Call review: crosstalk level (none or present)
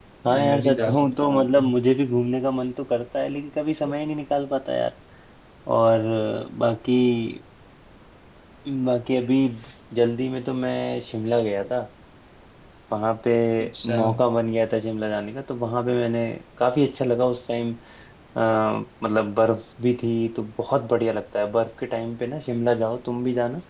present